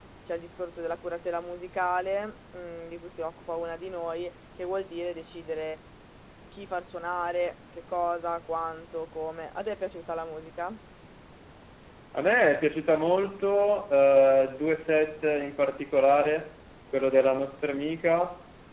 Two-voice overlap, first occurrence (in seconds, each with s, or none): none